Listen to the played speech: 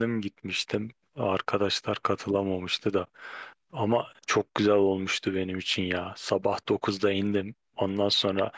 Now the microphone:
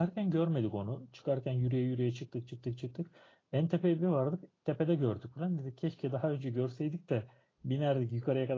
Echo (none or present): none